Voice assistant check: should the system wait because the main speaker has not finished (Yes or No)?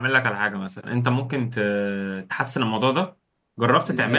Yes